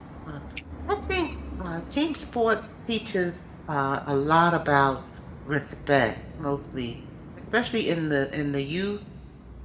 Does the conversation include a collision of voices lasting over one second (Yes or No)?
No